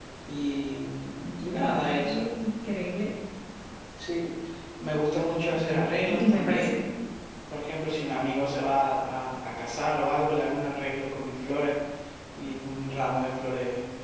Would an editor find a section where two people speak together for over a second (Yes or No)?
Yes